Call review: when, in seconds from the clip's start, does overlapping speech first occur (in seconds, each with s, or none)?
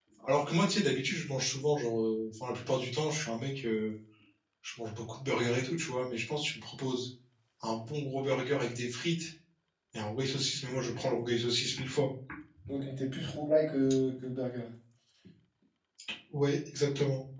none